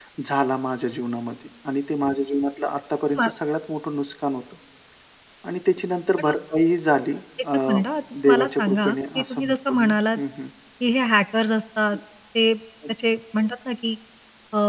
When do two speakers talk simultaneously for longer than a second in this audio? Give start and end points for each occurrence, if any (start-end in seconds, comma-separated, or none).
8.2-10.2